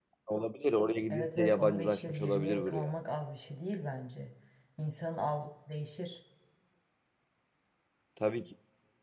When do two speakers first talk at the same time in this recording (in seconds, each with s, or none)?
1.1 s